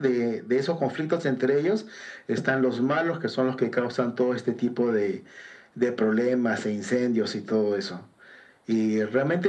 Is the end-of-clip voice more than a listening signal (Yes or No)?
No